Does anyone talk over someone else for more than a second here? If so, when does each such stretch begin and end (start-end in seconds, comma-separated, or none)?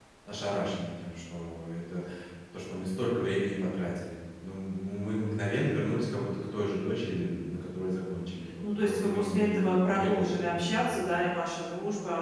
8.6-11.0